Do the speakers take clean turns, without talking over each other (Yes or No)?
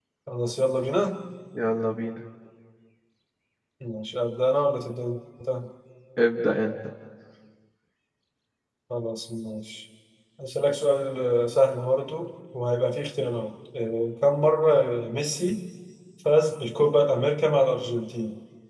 Yes